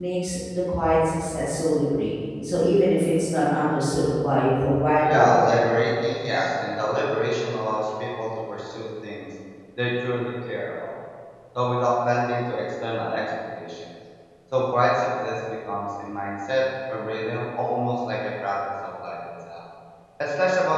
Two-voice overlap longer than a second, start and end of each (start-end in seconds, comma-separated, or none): none